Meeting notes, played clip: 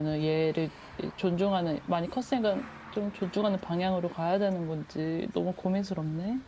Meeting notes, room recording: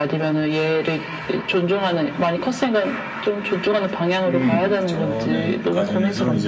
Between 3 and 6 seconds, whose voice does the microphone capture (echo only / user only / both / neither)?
both